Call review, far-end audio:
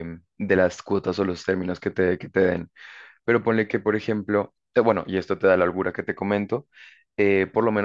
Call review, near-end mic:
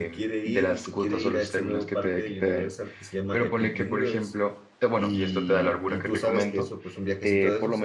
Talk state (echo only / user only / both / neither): both